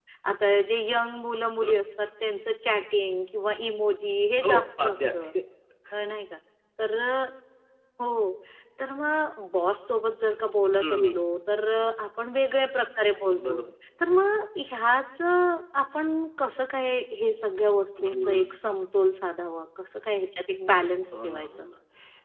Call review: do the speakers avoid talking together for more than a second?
No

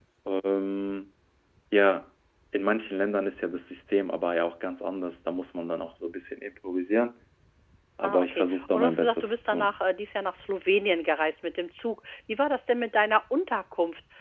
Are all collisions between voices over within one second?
No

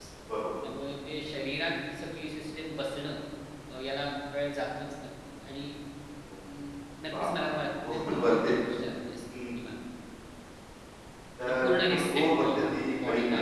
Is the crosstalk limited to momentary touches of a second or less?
No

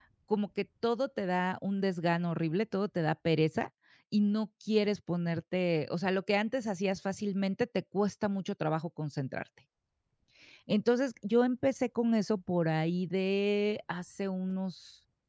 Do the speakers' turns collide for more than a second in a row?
No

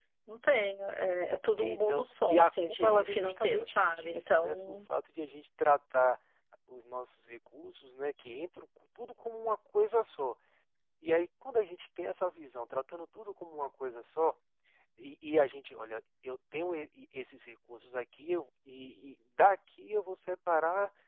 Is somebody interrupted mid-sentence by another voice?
Yes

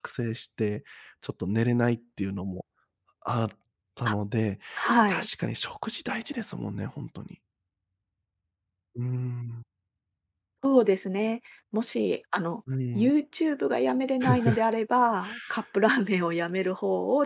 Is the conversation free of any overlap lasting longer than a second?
Yes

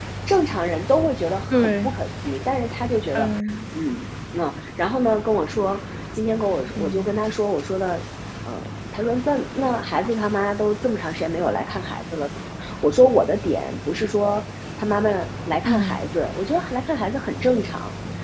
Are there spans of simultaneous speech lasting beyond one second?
No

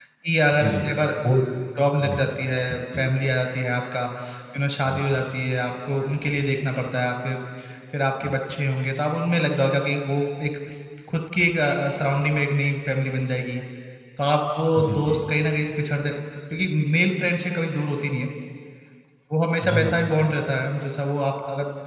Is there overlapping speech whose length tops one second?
No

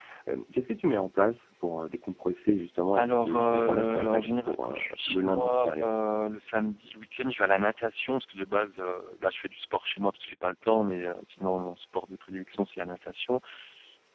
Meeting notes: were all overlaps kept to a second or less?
No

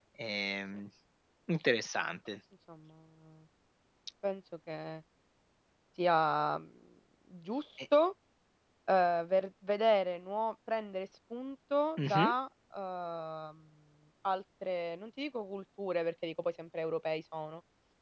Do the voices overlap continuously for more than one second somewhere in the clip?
No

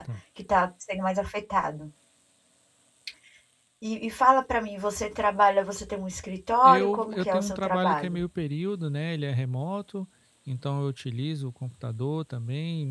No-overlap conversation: No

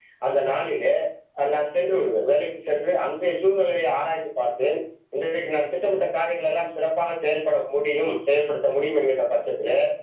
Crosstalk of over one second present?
No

